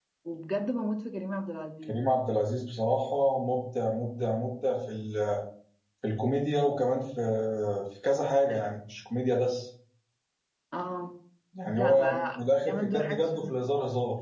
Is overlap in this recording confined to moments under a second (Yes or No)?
No